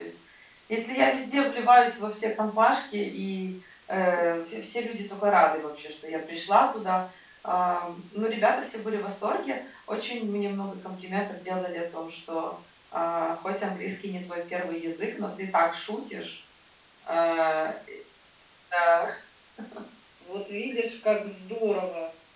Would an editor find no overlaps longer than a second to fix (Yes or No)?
Yes